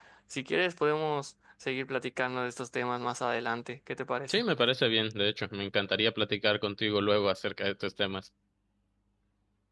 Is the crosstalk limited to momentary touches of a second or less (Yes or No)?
Yes